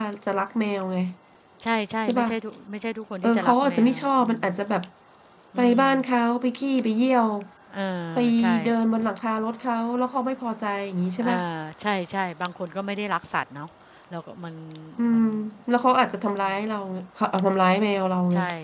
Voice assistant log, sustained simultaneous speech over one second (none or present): present